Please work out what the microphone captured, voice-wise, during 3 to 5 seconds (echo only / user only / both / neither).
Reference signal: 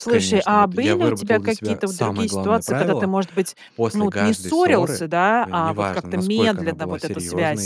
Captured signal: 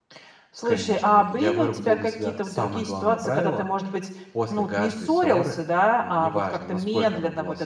echo only